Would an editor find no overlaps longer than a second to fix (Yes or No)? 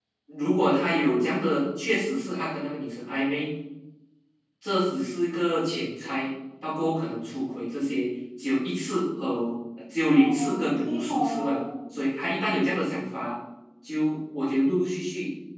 No